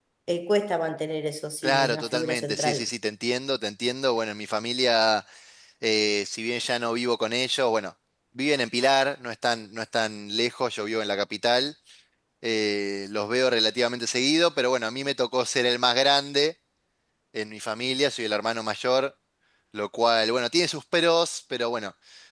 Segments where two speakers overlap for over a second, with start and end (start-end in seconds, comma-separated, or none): 1.6-2.9